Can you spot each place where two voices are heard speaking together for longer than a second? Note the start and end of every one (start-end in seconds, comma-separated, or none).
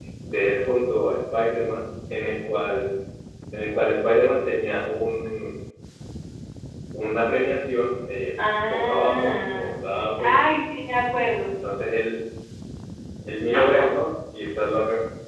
8.6-10.4